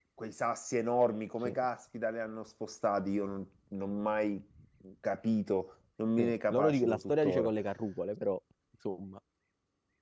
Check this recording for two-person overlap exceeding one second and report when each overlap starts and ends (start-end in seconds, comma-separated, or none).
6.2-7.5